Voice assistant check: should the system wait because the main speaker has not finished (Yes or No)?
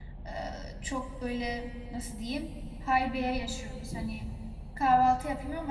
Yes